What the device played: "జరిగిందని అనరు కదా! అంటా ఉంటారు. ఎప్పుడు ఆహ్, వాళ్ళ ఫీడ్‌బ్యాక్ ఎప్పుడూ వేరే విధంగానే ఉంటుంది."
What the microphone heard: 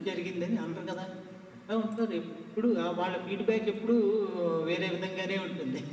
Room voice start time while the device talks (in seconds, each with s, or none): none